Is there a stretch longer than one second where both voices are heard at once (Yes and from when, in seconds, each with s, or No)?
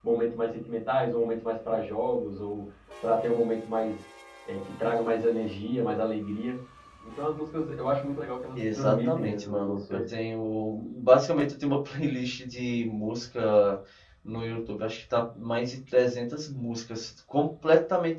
Yes, from 8.6 s